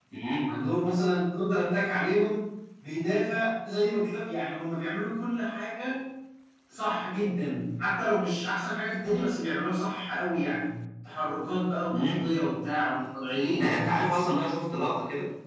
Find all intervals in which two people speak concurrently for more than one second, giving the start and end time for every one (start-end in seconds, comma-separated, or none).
none